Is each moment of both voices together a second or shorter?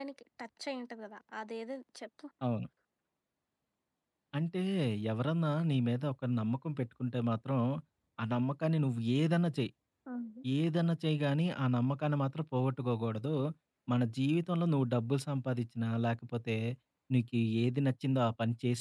Yes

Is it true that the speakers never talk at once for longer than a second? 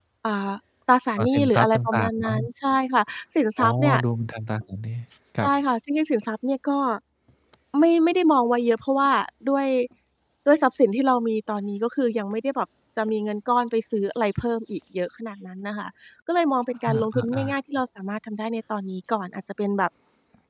No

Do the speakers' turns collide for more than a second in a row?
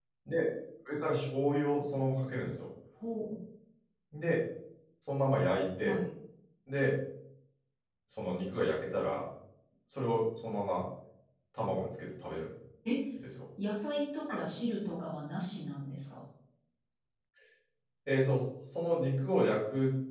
No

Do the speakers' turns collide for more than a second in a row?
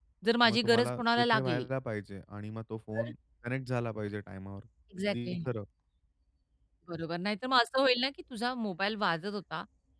Yes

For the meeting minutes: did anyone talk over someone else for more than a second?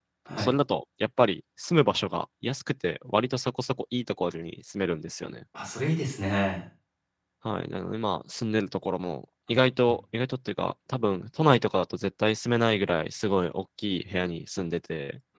No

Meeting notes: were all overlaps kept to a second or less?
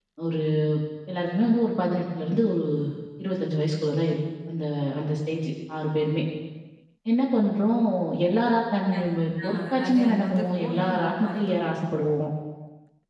No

